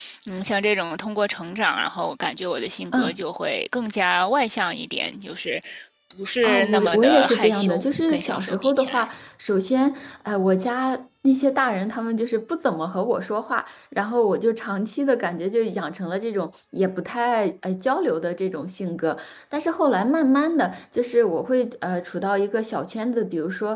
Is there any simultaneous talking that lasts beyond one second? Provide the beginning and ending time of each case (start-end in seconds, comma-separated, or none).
6.4-9.1